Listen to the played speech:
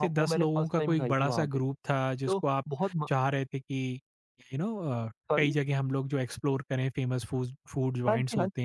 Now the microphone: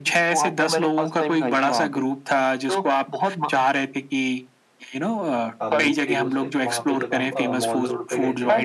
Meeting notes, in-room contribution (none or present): present